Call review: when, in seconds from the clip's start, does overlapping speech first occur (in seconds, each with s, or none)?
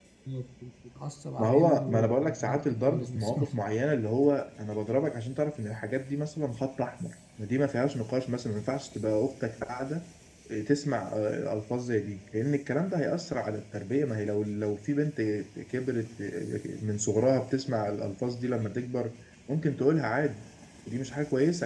1.4 s